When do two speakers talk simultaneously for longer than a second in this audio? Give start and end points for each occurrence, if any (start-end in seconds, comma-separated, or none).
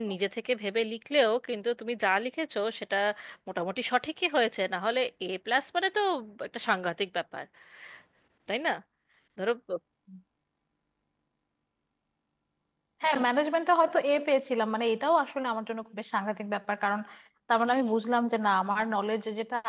none